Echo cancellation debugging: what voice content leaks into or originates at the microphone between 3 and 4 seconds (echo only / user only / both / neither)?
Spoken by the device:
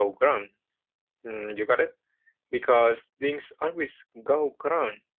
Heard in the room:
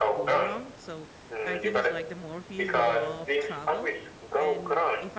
both